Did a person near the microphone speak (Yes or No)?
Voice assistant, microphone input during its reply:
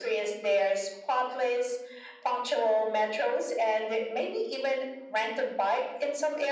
No